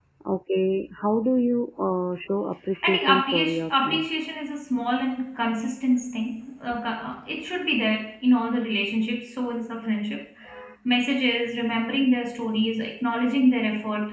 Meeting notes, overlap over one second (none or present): present